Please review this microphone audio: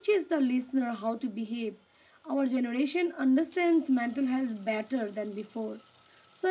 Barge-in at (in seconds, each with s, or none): none